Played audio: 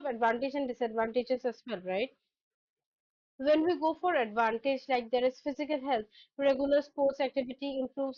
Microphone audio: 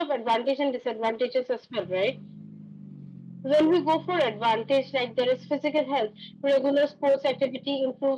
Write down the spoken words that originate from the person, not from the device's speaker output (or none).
none